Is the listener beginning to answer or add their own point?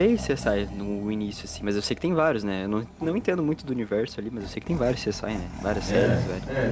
Yes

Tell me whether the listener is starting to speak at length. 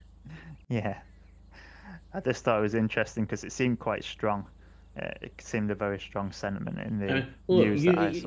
Yes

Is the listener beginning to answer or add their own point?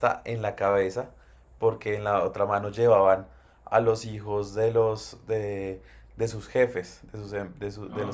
No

